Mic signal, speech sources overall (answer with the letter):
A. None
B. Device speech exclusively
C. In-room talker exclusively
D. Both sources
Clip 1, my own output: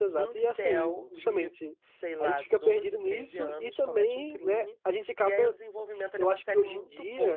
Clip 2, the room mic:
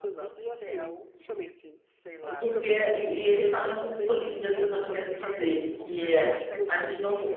D